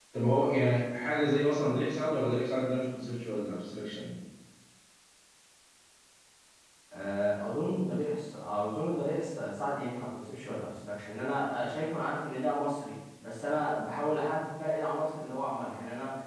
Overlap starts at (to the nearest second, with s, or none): none